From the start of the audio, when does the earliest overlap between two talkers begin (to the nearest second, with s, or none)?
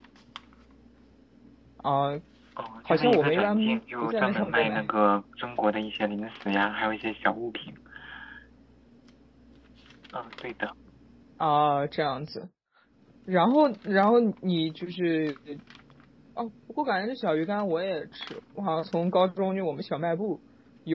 3 s